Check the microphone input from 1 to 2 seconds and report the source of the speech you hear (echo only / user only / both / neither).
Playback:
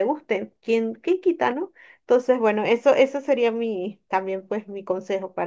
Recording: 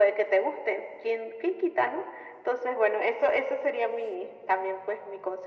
echo only